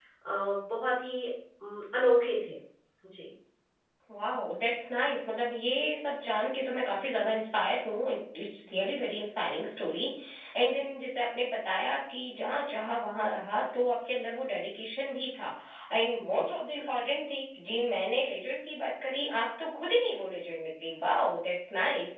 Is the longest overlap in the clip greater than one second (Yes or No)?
No